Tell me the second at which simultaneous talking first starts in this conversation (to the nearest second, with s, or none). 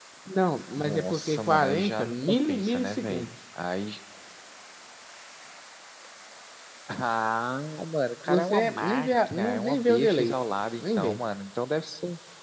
1 s